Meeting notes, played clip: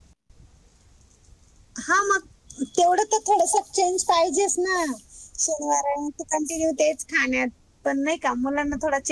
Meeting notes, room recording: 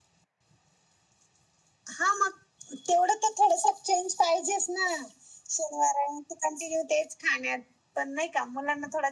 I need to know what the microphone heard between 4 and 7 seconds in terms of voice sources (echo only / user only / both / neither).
echo only